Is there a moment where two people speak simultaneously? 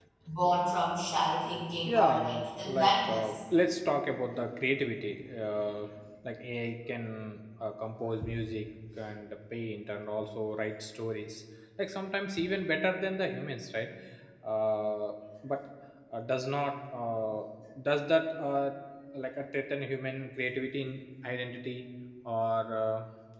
Yes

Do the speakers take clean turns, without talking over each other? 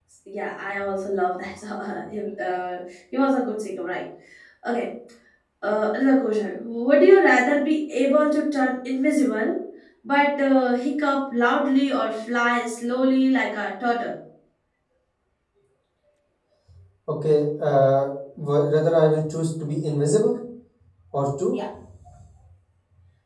Yes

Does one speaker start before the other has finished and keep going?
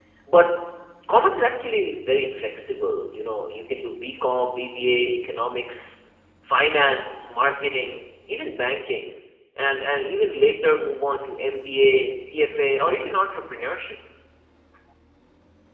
No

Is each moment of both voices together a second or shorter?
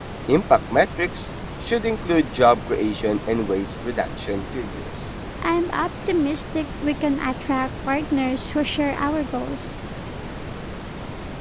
Yes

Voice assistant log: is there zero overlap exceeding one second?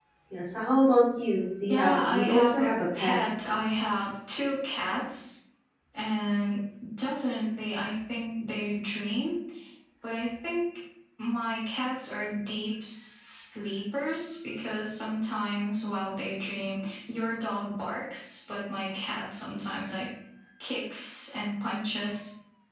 No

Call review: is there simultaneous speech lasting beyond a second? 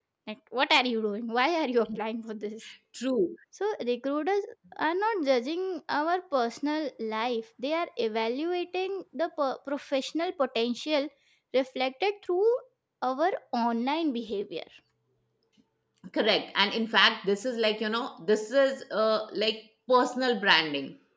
No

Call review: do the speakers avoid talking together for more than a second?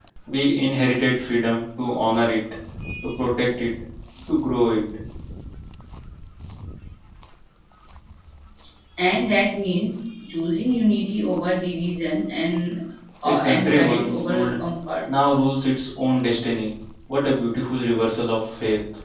No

